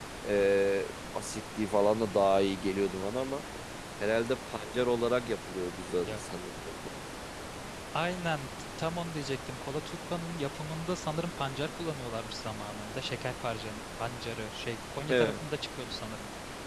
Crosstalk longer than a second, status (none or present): none